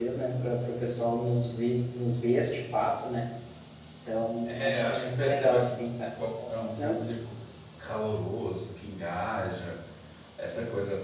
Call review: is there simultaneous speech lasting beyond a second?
Yes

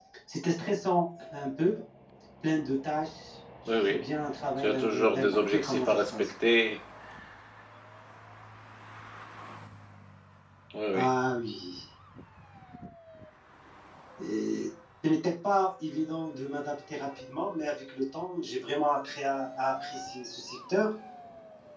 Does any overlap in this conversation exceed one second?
Yes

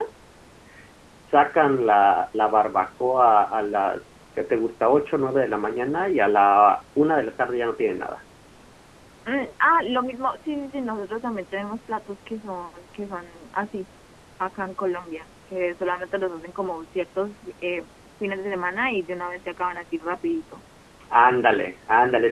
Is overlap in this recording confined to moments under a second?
Yes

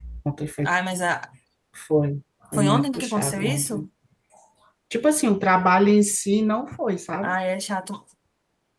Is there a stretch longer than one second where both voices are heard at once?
Yes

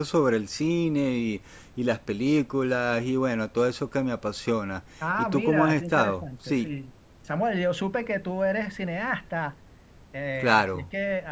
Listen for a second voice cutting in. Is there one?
Yes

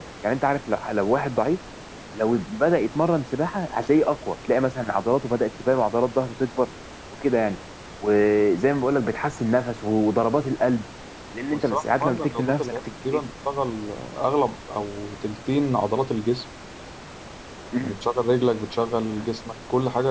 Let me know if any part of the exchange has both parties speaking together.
Yes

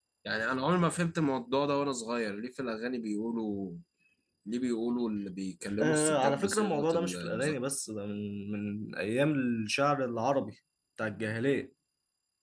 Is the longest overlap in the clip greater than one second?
Yes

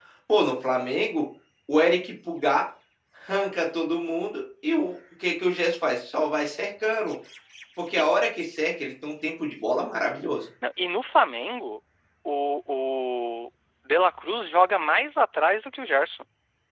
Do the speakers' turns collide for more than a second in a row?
No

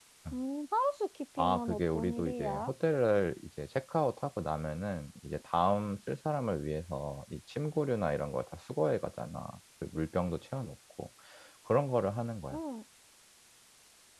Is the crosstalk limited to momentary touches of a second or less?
No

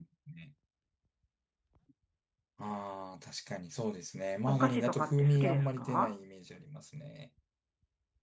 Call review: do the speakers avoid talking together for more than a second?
No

